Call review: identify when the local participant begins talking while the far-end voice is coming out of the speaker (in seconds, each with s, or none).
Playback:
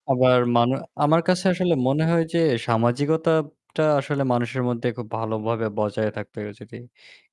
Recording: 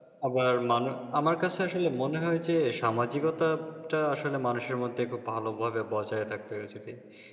none